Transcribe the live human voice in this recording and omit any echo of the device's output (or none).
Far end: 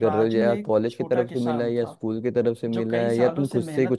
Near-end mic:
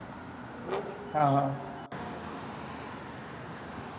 हाँ हाँ